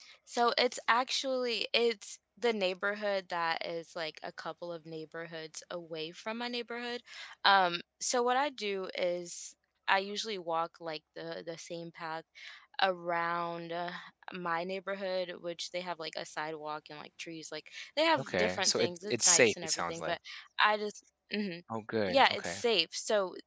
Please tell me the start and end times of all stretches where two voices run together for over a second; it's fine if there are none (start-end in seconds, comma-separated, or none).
18.2-20.1